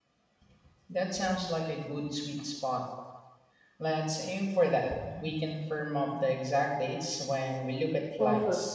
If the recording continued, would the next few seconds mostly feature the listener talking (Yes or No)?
Yes